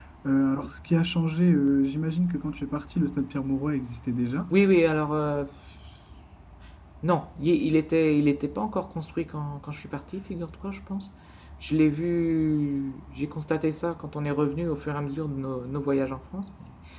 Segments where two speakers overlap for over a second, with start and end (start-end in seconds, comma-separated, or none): none